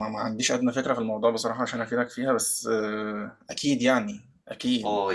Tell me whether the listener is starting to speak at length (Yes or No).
Yes